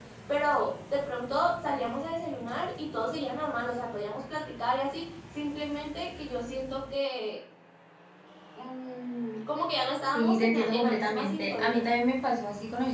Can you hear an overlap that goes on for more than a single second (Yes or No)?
Yes